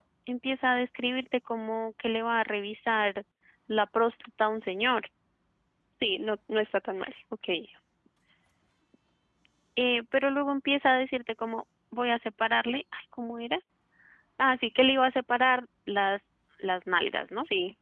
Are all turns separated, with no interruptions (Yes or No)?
Yes